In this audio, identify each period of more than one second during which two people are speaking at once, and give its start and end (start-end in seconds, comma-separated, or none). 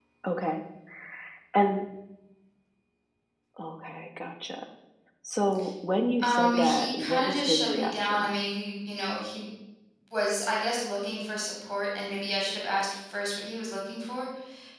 6.2-8.3